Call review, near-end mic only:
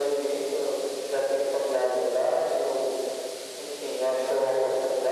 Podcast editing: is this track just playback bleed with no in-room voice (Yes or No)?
Yes